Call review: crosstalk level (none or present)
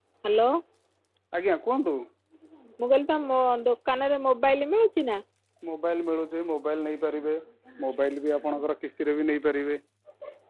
none